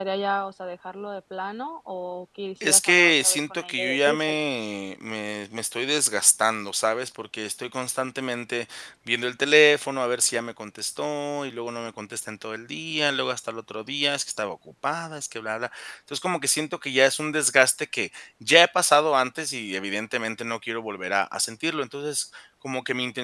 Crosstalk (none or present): present